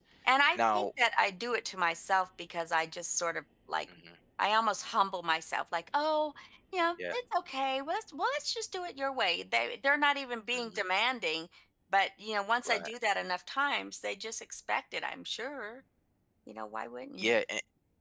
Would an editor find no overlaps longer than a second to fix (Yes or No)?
Yes